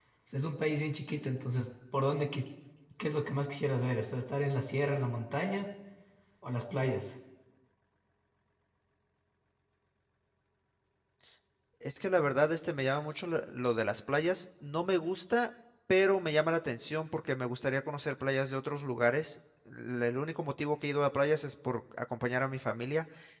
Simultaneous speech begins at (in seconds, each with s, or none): none